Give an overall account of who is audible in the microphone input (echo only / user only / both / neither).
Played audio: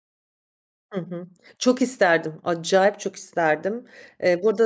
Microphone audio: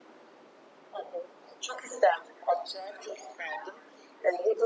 echo only